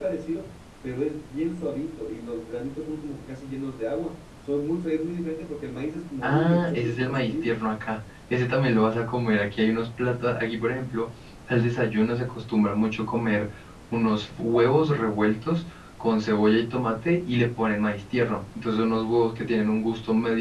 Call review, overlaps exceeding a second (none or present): present